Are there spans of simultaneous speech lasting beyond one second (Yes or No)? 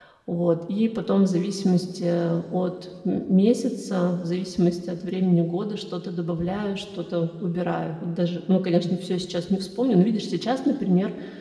No